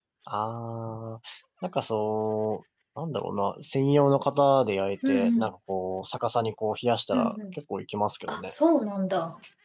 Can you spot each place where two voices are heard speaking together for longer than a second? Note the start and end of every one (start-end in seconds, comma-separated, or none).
none